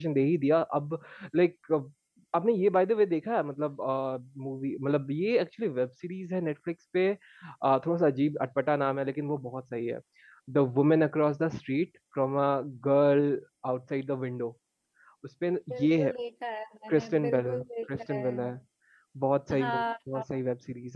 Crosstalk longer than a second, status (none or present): present